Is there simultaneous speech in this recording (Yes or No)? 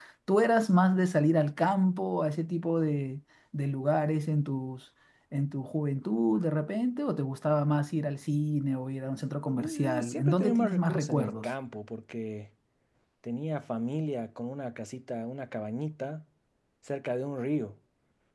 Yes